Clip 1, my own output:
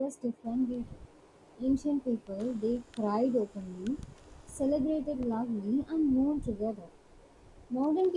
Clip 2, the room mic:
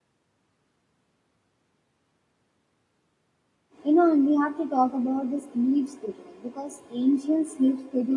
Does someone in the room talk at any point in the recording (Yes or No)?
Yes